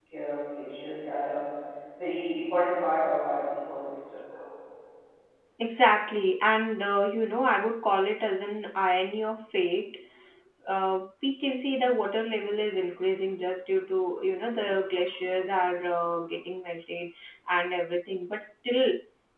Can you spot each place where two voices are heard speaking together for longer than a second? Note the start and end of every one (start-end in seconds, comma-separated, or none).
none